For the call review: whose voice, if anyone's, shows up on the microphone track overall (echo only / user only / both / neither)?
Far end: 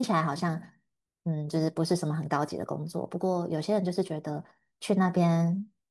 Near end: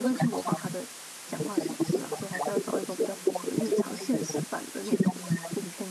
both